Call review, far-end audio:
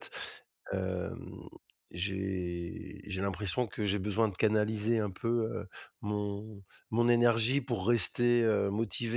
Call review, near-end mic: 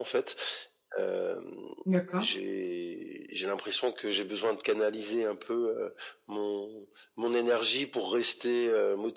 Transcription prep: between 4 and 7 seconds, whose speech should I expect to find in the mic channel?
echo only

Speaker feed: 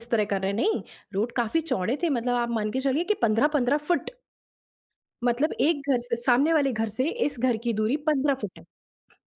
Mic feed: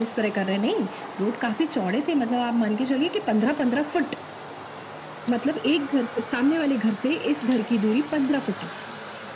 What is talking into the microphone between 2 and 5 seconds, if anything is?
echo only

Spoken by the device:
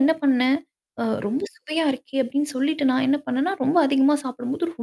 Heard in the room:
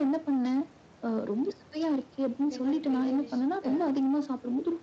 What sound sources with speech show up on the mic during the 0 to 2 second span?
echo only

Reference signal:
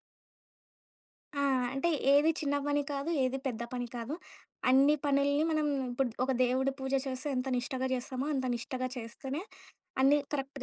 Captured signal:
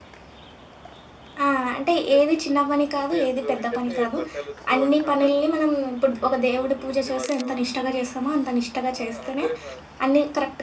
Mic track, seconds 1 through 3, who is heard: both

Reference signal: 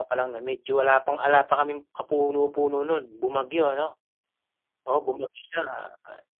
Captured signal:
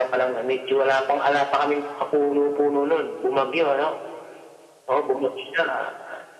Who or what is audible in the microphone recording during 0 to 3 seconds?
echo only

